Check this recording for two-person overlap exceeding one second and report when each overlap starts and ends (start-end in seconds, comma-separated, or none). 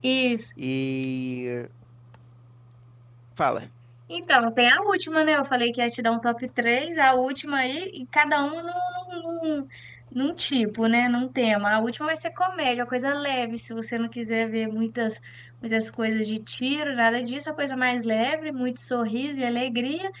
none